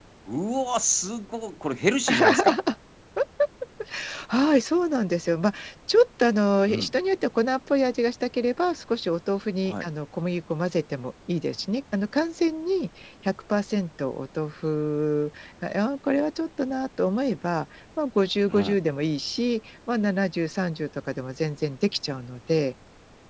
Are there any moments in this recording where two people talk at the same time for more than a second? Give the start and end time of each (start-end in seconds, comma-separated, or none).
none